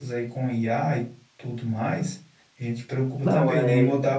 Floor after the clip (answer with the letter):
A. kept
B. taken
A